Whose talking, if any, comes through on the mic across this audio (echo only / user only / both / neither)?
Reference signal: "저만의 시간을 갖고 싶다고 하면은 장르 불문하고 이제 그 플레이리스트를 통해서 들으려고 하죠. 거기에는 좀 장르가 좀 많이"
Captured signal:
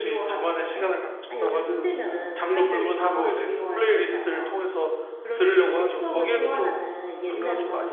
both